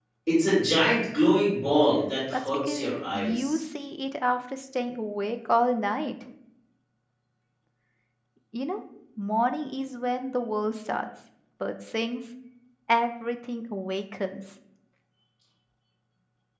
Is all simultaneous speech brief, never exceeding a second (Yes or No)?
No